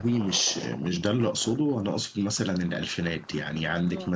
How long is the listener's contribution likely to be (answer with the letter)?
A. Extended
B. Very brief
B